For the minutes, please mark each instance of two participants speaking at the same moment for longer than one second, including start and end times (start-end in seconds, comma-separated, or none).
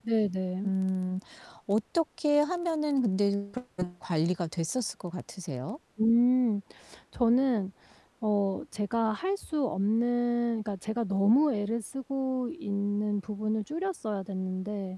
none